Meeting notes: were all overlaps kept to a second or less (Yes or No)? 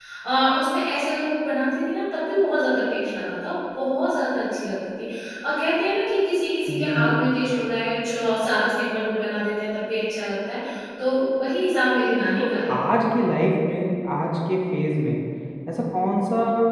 Yes